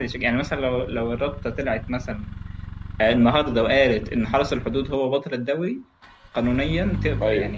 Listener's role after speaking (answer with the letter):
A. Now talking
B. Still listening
B